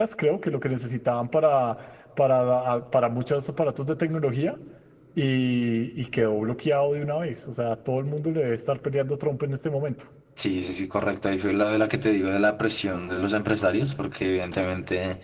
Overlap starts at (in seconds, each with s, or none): none